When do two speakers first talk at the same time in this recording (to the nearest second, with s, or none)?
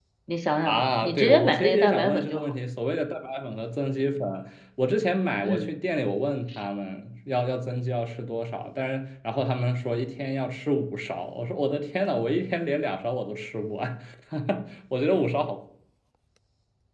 1 s